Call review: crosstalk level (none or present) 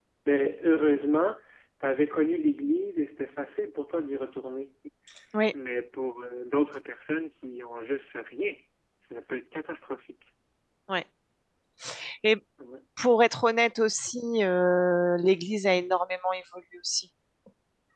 none